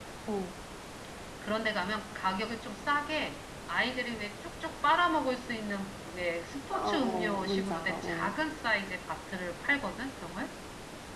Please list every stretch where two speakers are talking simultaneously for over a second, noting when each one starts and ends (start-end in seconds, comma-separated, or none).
6.7-8.4